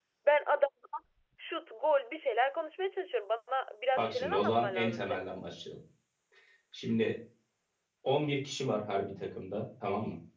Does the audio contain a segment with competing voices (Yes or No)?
Yes